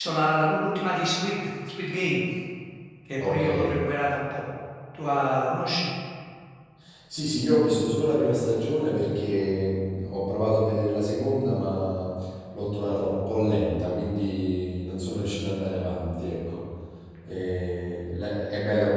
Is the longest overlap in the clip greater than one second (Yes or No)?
No